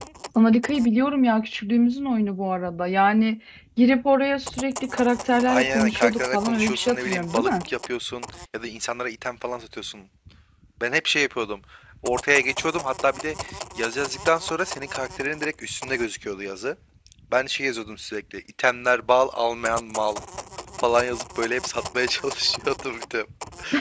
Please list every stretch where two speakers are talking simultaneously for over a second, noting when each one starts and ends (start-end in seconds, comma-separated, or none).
5.5-7.5